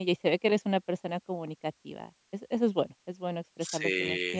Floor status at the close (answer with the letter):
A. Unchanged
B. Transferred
A